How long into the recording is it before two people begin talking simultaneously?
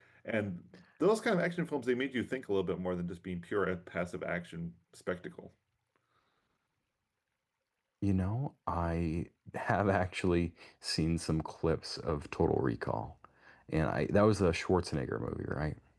none

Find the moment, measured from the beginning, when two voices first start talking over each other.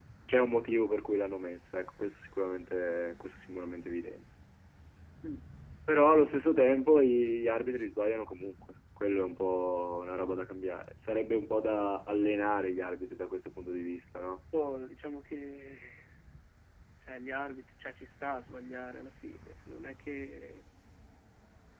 none

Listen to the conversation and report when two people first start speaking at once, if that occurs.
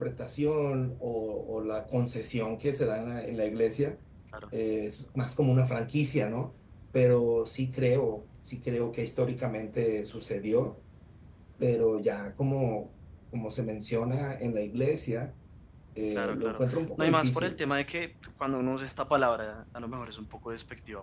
16 s

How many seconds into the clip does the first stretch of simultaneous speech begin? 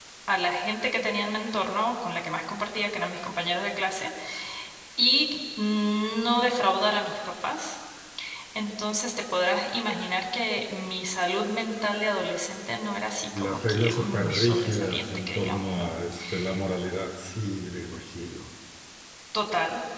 13 s

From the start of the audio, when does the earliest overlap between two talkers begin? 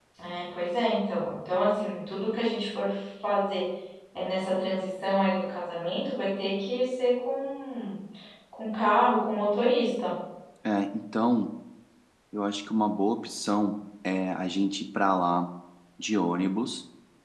none

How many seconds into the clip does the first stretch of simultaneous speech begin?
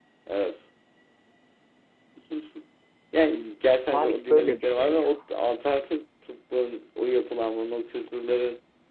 4 s

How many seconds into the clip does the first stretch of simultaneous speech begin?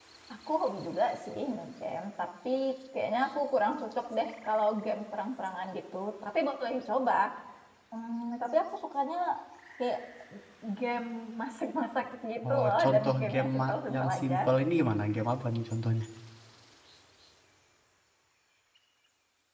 12 s

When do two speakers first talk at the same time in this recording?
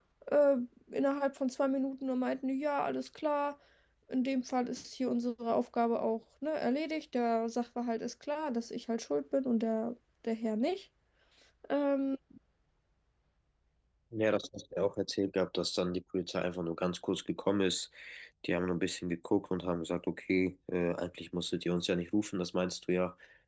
none

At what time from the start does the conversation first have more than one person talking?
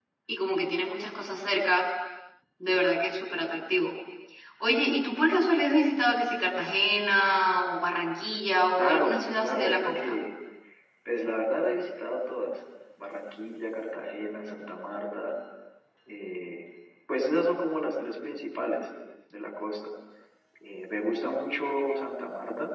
9 s

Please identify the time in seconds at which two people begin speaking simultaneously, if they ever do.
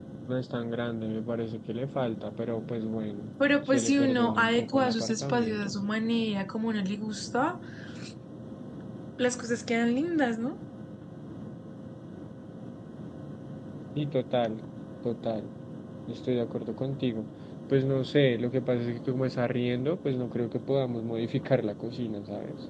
4 s

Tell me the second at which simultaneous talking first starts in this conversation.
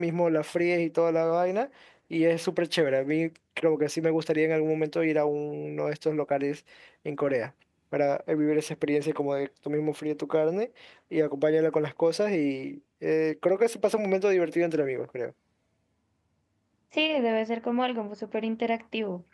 none

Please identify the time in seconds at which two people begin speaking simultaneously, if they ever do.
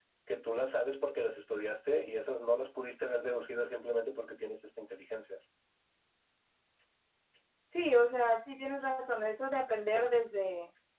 none

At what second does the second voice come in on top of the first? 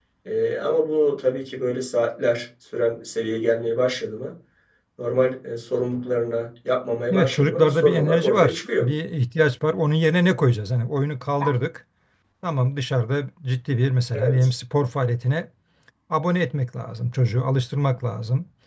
7 s

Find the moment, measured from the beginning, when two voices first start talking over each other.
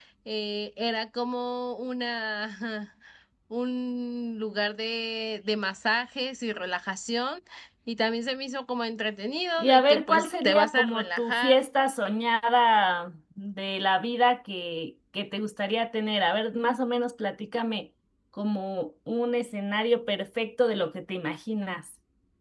10 s

